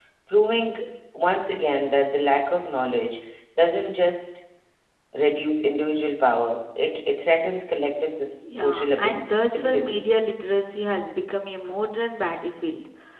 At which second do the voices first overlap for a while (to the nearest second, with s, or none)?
8 s